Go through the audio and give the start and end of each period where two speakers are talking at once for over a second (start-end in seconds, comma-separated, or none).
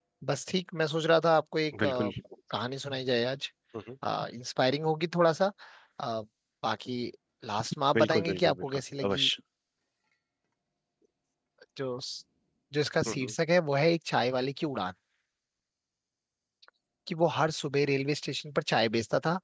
8.0-9.3